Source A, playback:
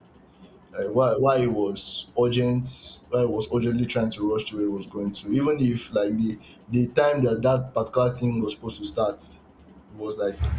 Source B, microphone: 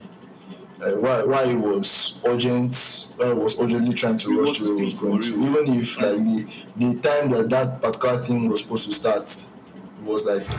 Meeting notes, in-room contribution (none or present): present